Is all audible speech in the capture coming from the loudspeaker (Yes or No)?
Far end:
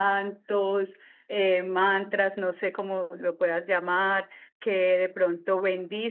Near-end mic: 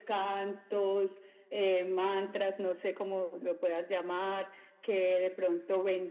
Yes